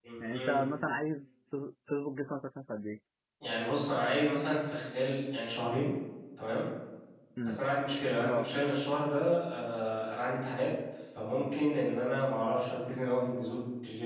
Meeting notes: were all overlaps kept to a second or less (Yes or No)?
Yes